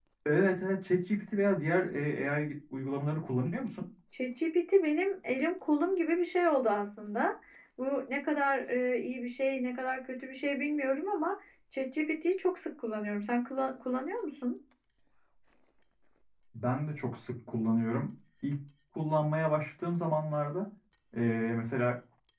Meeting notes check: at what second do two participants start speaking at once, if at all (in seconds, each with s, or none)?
none